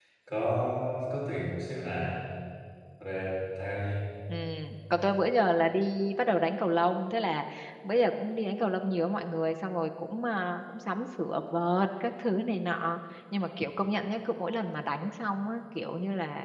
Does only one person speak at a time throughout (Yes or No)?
Yes